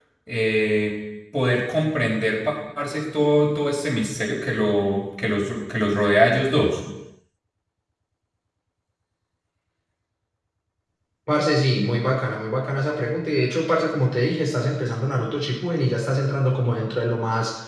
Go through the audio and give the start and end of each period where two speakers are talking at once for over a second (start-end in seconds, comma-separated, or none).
none